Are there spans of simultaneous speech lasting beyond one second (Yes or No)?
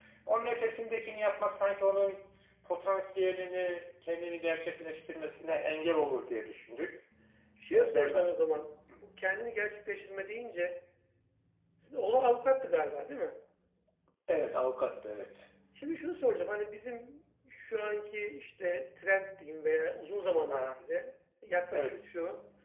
No